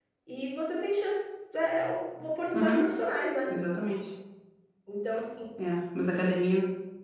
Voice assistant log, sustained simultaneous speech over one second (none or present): none